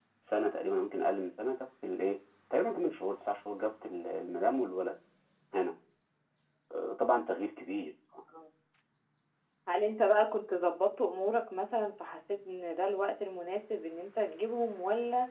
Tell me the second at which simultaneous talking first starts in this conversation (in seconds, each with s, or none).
none